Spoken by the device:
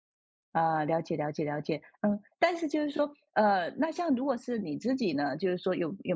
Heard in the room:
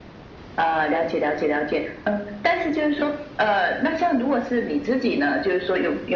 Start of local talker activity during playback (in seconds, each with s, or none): none